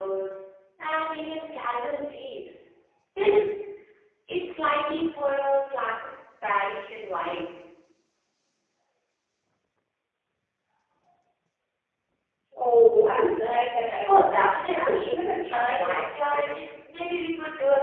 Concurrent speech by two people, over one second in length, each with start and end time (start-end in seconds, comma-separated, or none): 14.7-16.6